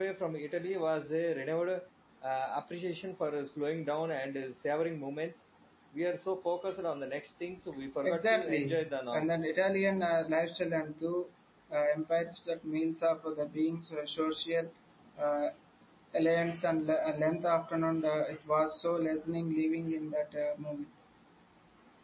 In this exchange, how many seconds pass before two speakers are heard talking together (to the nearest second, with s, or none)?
8 s